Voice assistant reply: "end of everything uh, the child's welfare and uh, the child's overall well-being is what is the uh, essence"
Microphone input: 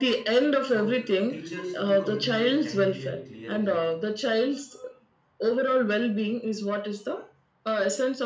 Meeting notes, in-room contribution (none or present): present